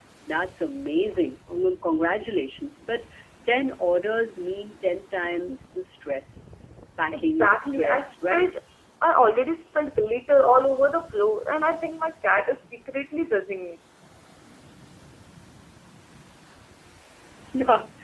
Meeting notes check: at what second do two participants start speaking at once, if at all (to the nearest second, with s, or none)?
7 s